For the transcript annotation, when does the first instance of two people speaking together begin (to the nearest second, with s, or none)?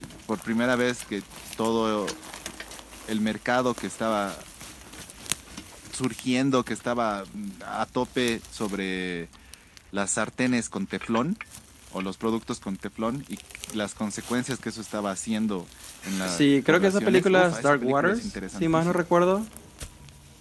16 s